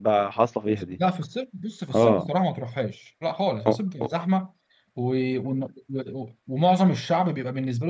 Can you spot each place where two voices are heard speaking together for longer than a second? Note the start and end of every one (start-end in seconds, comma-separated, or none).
none